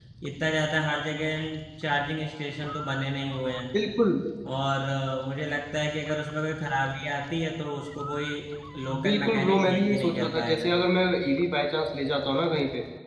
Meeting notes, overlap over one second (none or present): present